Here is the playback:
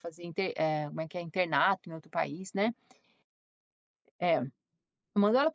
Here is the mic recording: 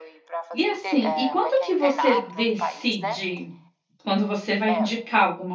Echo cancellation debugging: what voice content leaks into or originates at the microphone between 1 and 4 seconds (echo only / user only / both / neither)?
both